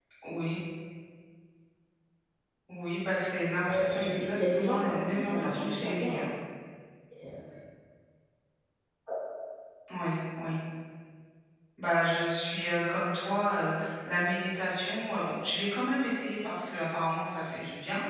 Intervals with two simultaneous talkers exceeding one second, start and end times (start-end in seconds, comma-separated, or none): 3.6-6.2